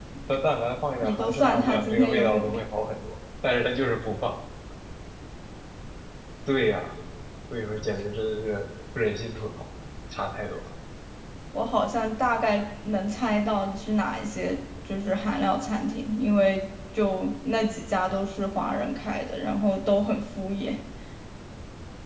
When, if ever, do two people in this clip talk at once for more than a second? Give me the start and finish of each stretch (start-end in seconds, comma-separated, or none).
1.0-2.6